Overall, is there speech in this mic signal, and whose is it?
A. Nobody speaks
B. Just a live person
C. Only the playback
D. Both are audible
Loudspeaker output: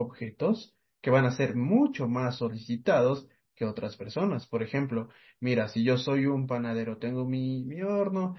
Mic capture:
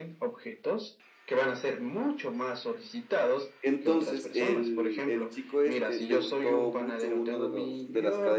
D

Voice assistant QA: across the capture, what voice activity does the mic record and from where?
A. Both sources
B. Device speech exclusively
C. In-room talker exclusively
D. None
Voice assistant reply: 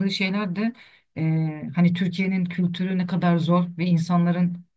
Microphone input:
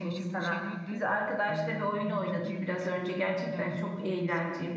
A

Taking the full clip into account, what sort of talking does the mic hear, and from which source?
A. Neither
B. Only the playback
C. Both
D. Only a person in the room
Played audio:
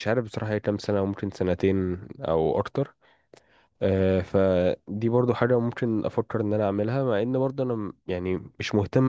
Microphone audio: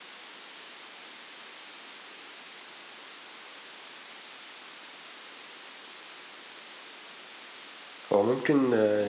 D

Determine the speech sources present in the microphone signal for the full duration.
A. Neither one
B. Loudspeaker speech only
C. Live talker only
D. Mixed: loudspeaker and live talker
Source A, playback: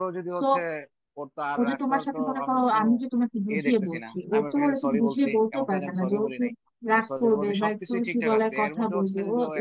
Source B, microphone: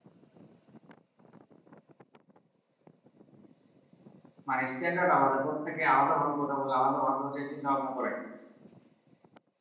C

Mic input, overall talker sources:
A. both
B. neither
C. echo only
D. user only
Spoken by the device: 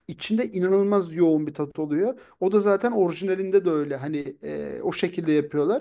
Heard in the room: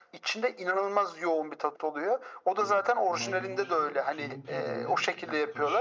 A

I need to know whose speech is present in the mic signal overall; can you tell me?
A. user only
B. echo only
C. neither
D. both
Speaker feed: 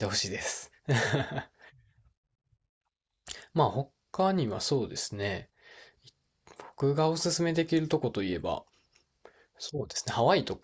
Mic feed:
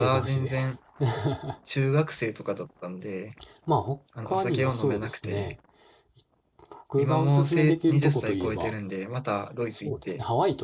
D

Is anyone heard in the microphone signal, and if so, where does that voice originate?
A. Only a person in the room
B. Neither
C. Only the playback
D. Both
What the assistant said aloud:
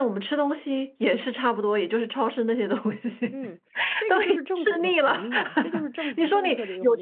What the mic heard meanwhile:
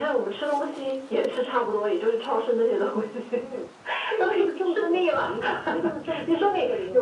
C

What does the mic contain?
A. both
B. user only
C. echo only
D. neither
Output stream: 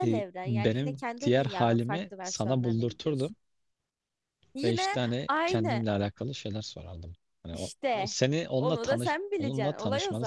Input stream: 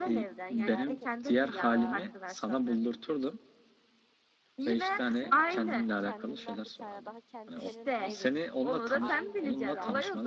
A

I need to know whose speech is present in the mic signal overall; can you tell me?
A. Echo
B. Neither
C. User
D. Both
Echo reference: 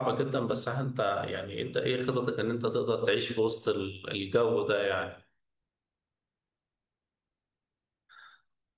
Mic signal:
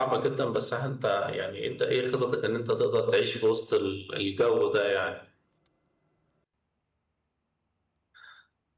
A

